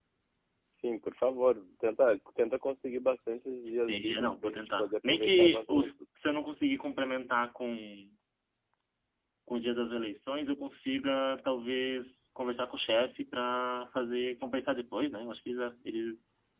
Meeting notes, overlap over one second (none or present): present